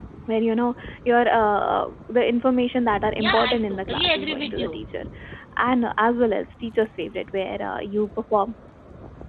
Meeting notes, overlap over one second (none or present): present